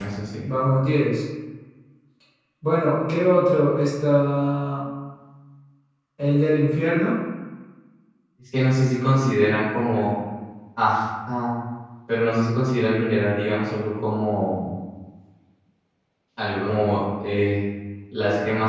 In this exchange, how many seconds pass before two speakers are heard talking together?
none

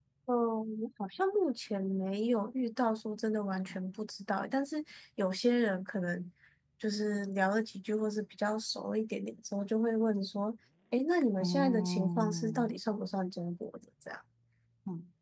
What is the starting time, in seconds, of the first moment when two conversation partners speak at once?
11.4 s

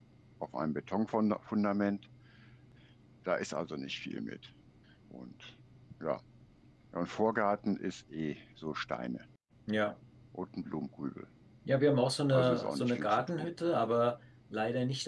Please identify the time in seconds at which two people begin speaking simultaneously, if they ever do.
12.3 s

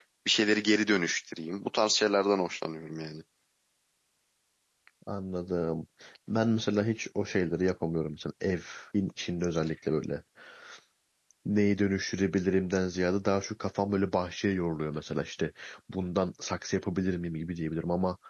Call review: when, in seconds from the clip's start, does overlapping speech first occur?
none

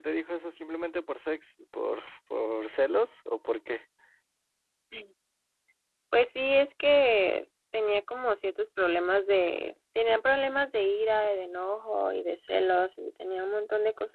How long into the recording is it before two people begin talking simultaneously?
none

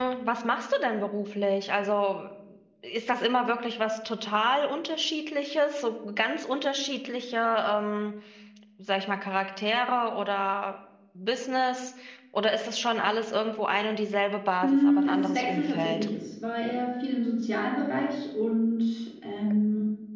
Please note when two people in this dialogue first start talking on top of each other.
14.6 s

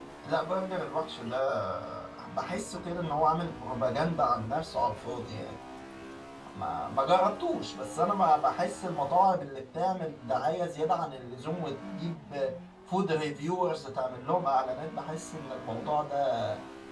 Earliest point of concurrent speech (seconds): none

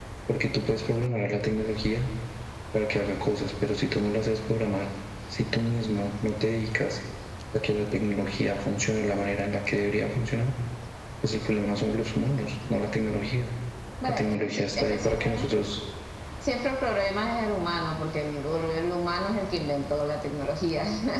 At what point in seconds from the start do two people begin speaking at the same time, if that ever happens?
14.1 s

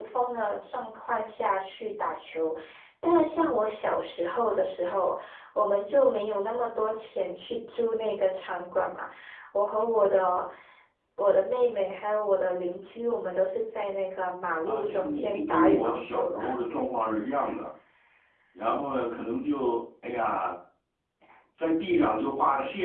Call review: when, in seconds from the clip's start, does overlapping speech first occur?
14.7 s

